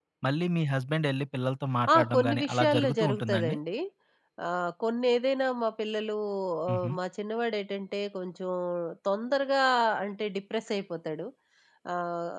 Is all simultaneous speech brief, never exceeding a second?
No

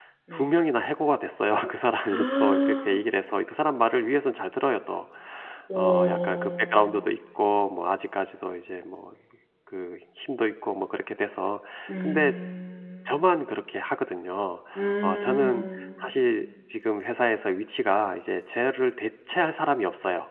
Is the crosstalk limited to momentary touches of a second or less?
No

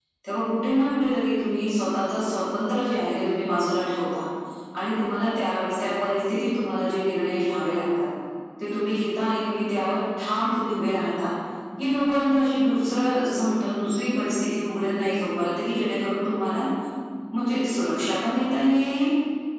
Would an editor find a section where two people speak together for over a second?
No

